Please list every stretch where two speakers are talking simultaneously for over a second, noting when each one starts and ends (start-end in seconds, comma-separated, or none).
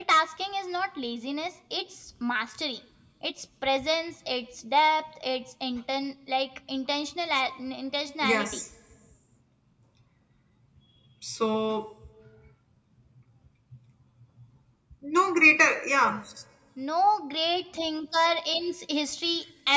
none